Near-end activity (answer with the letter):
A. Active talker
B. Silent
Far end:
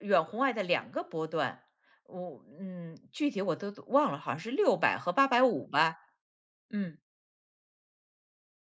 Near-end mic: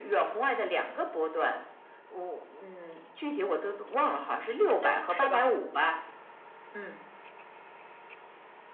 A